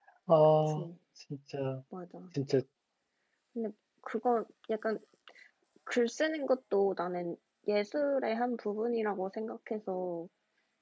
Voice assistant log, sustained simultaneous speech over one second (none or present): none